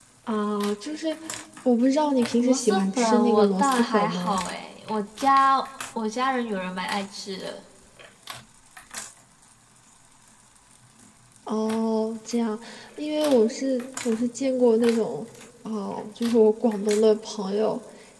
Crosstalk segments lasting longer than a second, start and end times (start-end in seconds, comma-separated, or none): 2.4-4.4